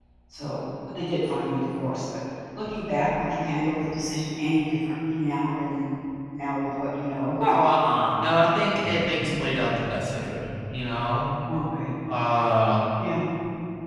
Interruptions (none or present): none